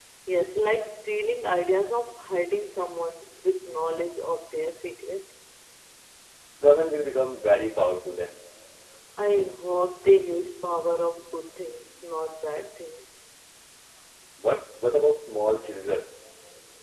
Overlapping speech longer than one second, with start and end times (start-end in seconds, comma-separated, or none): none